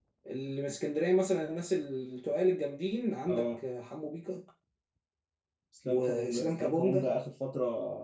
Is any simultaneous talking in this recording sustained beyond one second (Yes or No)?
Yes